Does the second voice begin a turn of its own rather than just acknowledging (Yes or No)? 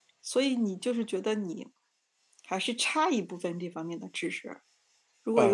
No